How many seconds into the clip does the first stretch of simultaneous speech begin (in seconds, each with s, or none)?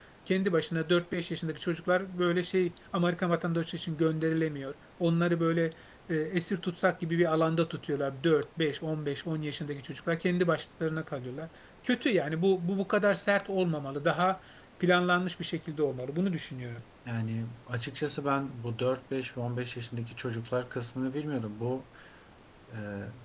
none